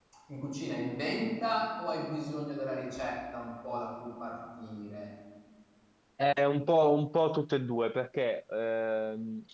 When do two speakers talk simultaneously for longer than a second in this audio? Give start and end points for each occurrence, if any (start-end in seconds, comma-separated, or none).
none